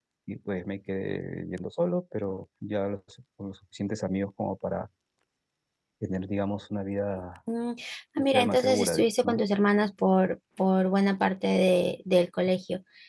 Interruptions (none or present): present